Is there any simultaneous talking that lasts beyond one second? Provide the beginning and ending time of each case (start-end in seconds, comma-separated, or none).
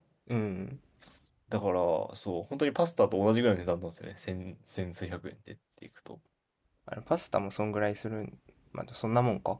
none